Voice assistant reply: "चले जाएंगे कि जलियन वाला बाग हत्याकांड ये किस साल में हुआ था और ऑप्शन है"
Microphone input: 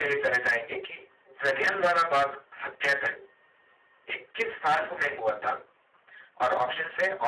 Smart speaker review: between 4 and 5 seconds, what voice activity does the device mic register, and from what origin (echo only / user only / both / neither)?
echo only